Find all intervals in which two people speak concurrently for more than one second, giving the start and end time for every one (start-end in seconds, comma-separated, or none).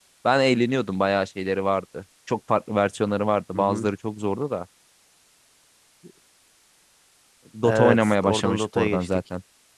7.6-9.1